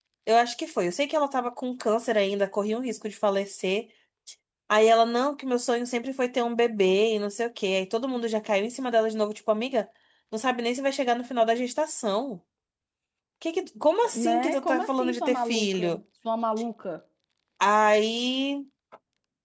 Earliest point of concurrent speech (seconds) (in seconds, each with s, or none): 14.2 s